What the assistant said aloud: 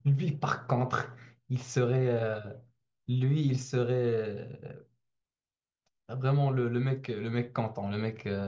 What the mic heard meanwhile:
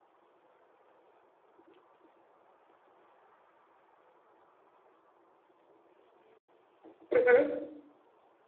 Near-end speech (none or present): present